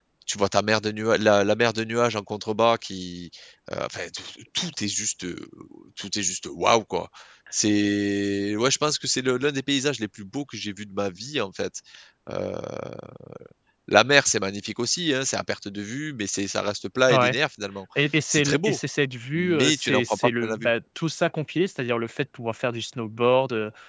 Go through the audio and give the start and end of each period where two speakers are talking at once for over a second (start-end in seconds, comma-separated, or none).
19.4-20.7